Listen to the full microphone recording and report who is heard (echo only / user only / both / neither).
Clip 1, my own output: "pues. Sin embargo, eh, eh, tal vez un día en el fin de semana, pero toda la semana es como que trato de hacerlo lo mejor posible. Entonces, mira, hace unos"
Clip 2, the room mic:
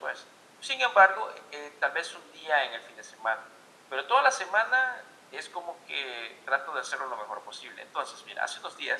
echo only